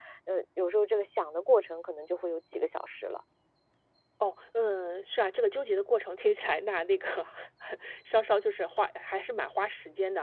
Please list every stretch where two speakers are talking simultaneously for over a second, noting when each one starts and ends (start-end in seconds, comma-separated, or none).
none